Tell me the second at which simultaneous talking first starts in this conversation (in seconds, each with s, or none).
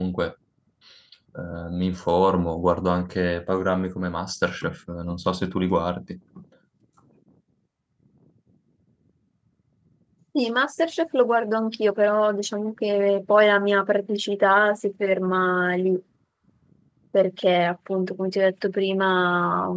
none